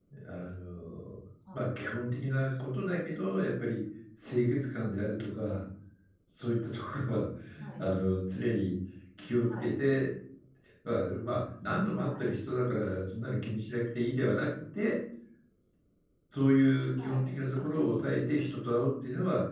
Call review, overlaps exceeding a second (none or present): none